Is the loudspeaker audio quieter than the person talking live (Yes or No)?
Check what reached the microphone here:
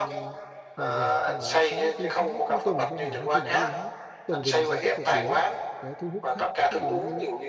No